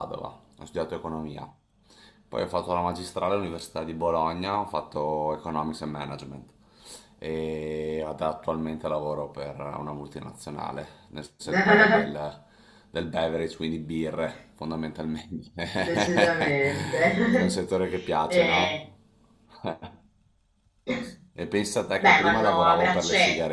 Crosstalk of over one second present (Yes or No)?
Yes